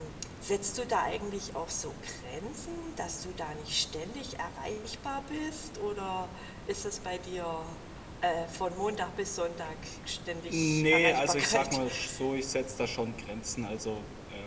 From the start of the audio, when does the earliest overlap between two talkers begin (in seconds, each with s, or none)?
10.5 s